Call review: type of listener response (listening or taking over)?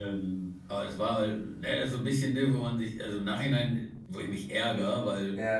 listening